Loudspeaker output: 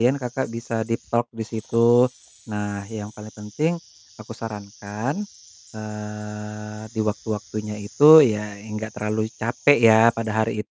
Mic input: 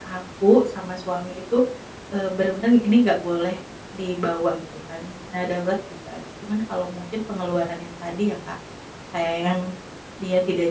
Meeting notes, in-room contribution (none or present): present